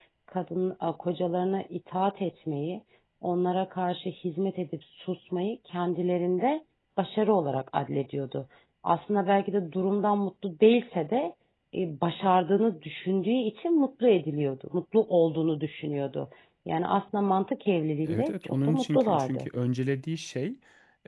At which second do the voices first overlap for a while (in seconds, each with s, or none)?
18.0 s